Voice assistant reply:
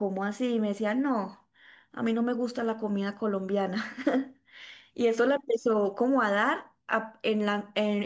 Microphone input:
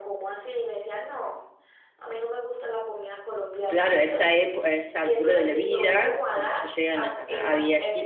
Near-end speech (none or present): present